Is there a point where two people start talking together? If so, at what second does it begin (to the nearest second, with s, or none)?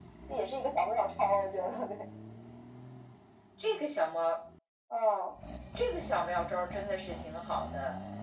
none